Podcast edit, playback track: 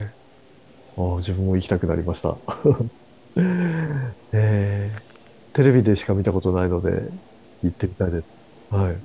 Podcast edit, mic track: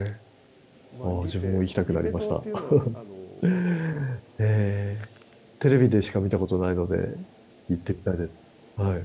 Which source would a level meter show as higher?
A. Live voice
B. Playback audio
B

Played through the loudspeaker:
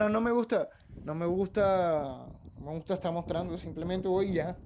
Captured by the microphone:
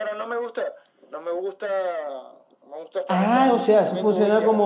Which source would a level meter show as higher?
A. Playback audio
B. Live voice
B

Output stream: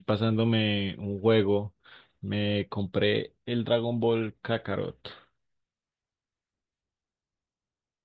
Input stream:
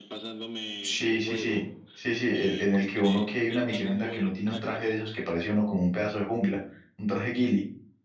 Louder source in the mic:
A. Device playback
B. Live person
B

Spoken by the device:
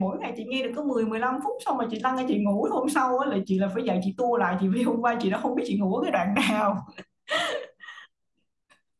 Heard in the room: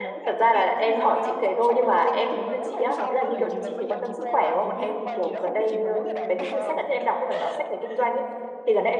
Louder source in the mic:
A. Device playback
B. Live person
B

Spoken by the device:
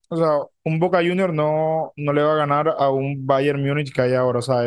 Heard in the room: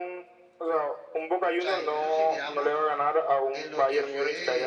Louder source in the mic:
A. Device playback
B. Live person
A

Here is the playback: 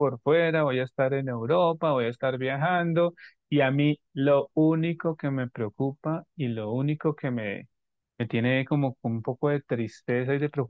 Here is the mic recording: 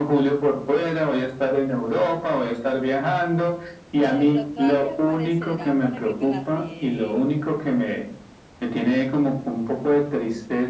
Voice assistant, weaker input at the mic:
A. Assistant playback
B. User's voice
B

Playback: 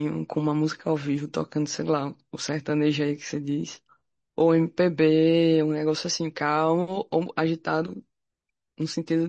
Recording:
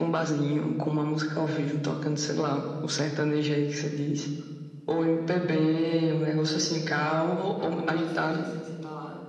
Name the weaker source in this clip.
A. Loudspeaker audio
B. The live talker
B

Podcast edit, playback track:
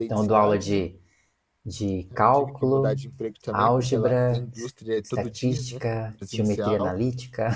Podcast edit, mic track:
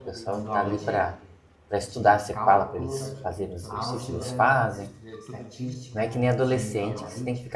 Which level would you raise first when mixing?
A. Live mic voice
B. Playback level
B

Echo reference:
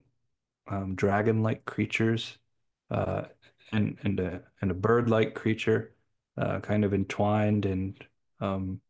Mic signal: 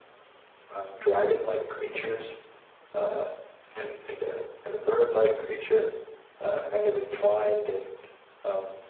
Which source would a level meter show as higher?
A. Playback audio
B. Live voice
A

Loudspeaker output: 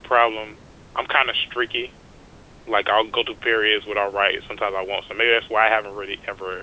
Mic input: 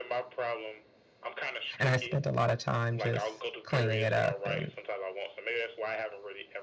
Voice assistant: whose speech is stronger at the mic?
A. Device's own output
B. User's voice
B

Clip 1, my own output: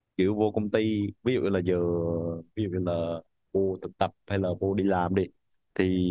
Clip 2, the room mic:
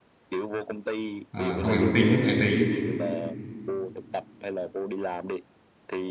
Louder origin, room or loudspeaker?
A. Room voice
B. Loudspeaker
A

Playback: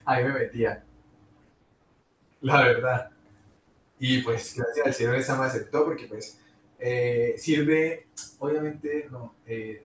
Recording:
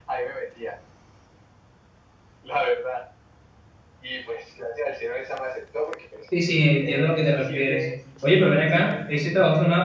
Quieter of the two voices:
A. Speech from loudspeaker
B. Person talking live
A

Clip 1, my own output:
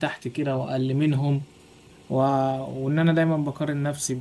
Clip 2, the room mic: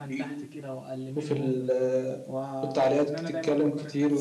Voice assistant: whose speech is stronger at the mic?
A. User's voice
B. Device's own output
A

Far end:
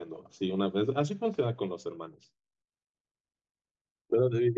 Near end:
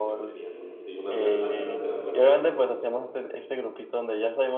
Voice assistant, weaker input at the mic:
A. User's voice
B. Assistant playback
B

